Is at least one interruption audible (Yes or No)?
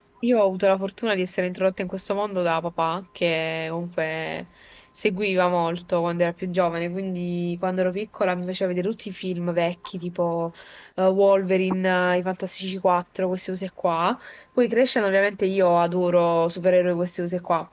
No